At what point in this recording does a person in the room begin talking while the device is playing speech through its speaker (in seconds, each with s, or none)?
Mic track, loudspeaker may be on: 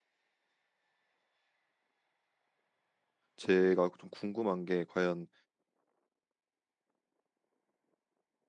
3.4 s